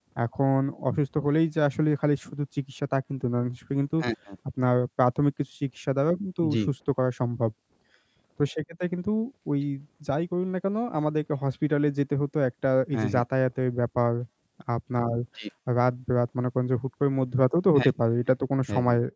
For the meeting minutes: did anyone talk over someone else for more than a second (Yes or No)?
No